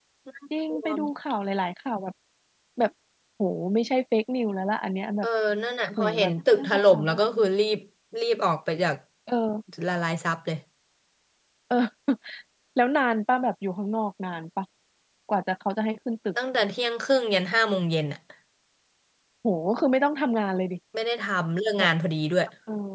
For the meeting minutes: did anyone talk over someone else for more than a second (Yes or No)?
Yes